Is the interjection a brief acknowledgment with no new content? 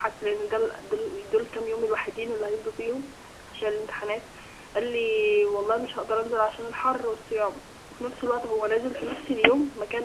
Yes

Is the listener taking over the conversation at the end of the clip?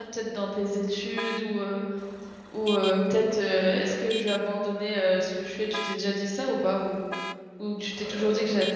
Yes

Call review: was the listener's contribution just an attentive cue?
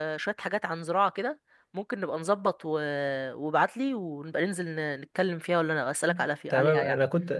No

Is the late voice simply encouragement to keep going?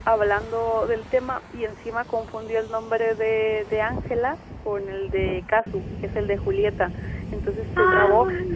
Yes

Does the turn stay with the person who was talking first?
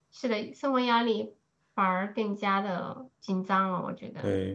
No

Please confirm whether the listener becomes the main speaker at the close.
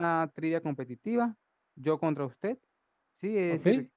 No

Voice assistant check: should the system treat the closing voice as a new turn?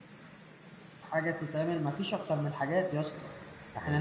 No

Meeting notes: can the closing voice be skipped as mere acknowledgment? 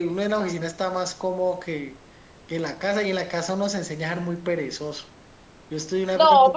Yes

